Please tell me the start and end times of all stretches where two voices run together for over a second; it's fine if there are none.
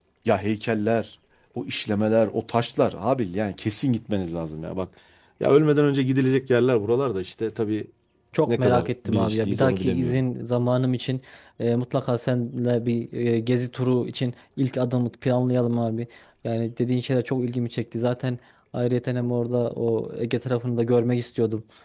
8.5-10.2

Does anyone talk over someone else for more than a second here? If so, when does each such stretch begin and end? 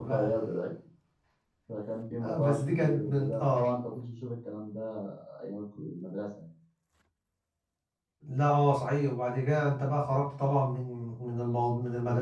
2.2-3.7

